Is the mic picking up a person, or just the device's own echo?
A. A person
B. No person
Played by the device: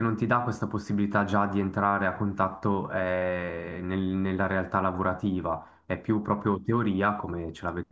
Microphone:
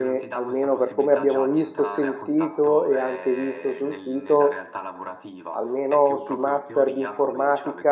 A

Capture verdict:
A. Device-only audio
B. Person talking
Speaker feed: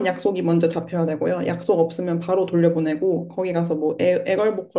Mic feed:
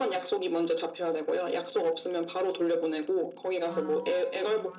B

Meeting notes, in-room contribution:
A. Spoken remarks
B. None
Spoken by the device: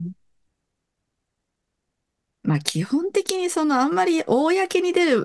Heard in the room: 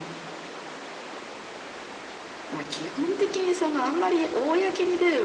B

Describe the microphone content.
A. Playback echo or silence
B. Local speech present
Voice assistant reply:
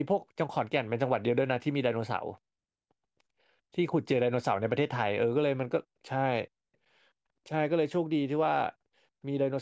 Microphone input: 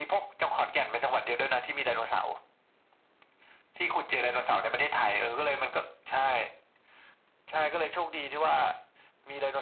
A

